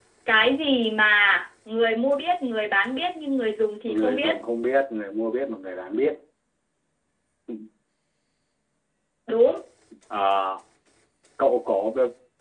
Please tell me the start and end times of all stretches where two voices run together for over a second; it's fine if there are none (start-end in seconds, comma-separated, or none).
none